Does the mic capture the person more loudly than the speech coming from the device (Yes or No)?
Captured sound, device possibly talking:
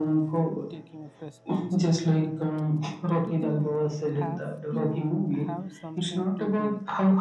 No